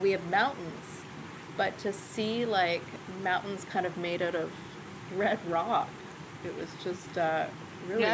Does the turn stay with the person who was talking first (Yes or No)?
No